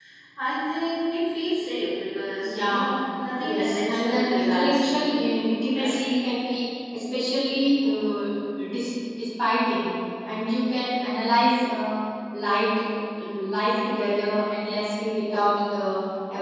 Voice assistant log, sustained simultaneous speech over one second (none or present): present